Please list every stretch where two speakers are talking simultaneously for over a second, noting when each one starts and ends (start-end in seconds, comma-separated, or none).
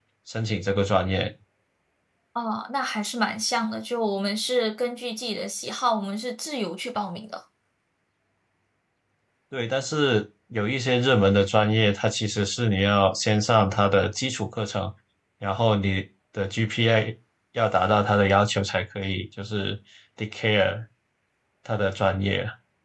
none